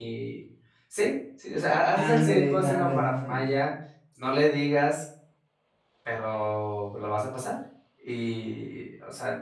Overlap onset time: 1.9 s

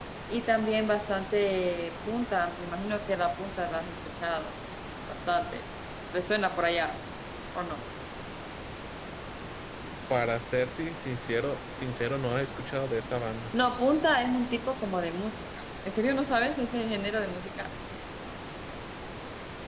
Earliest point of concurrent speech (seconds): none

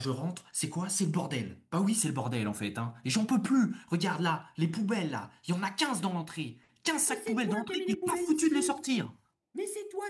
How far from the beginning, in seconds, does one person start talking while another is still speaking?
7.0 s

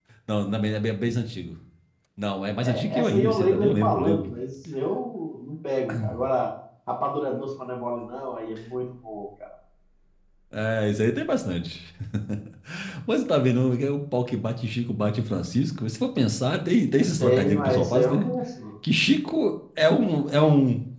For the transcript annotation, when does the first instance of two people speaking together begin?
2.6 s

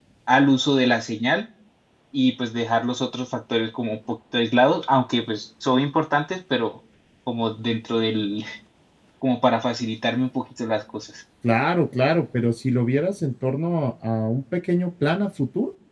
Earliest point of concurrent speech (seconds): none

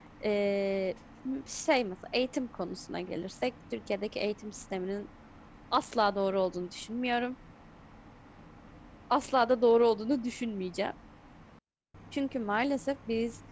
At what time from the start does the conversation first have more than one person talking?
none

